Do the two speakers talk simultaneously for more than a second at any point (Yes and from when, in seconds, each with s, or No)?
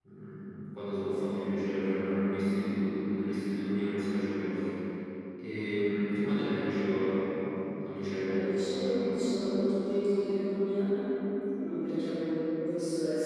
No